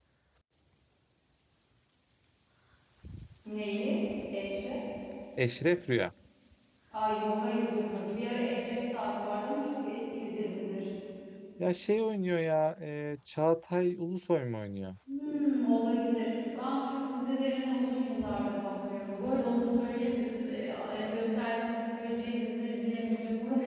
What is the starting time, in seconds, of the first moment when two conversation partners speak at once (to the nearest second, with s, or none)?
none